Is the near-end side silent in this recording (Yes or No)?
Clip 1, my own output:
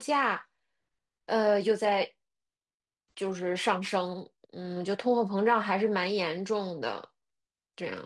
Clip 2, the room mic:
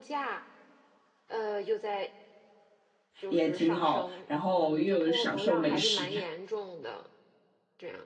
No